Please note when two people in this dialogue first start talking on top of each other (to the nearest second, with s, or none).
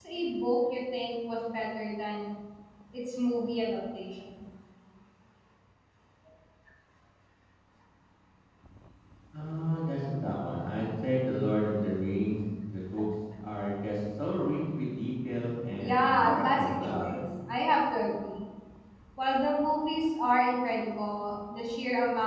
16 s